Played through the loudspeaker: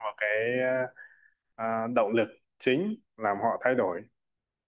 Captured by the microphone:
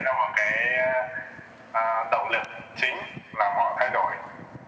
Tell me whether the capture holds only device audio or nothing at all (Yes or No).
Yes